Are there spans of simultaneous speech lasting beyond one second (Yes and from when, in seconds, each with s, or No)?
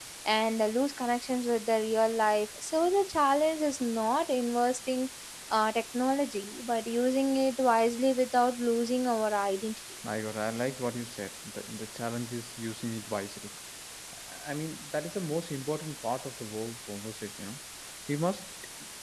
No